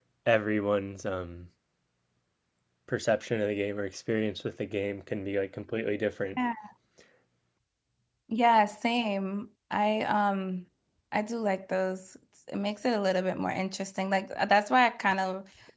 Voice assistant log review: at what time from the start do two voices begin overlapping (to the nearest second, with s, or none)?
none